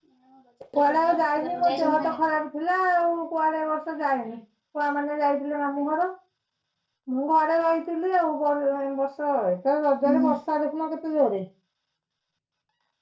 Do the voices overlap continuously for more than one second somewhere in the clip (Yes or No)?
Yes